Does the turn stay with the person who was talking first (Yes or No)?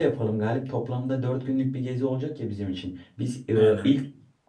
Yes